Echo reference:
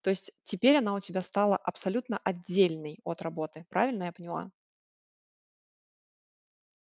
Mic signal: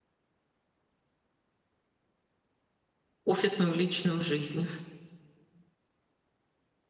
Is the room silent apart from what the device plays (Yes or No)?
No